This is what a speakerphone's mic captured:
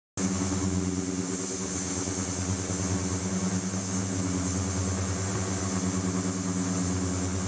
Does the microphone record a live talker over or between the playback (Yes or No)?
No